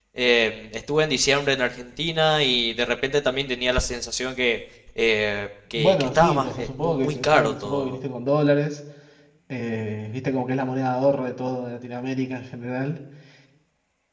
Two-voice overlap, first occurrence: 6 s

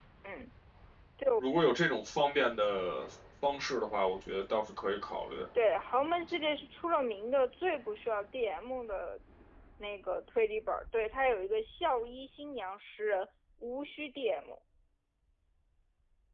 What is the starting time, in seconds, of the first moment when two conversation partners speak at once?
none

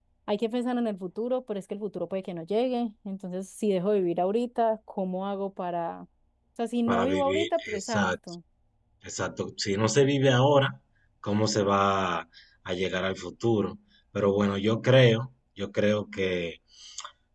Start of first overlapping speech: 7 s

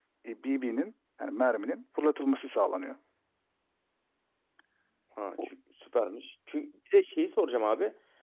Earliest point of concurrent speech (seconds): none

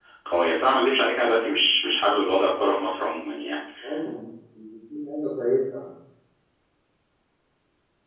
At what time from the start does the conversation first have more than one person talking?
none

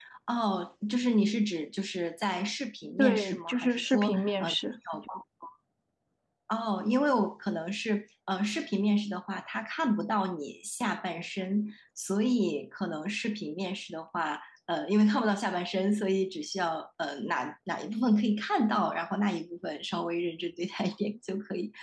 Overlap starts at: 3 s

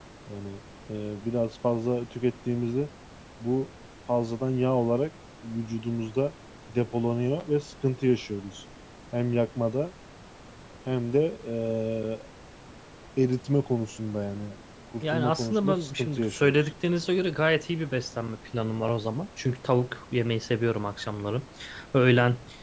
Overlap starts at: 15 s

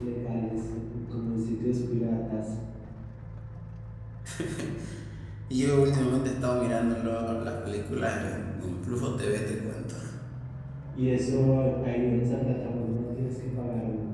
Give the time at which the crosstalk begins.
none

